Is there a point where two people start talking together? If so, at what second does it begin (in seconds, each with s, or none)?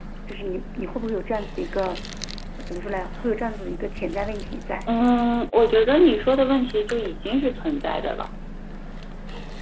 none